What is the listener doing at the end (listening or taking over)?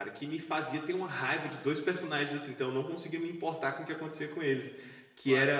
listening